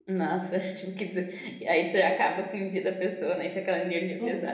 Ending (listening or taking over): taking over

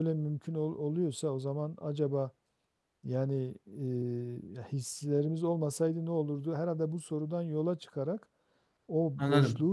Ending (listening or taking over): listening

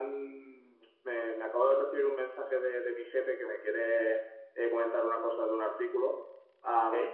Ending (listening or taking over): listening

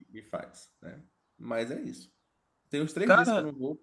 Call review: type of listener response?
listening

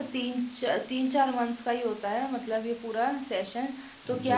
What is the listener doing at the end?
listening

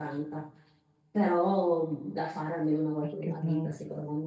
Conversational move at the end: listening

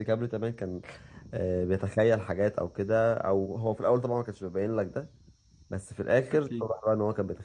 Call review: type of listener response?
listening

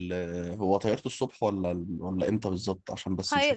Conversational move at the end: taking over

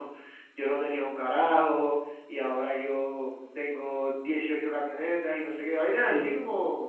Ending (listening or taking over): listening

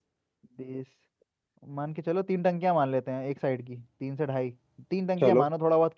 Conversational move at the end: listening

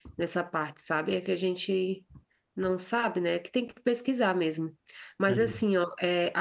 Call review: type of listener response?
listening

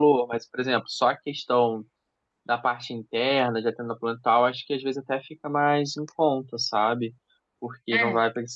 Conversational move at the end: listening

